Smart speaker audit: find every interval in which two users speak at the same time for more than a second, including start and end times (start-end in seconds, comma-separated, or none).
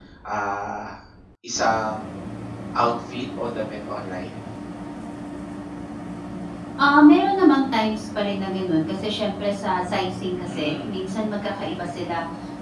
none